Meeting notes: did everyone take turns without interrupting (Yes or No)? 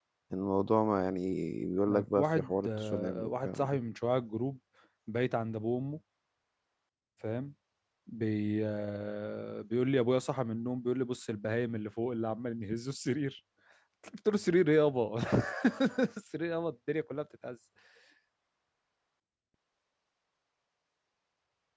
No